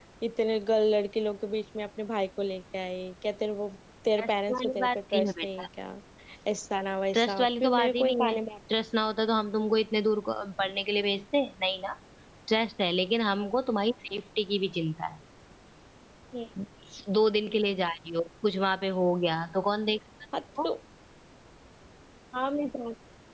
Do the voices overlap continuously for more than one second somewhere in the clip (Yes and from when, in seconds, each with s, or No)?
Yes, from 4.2 s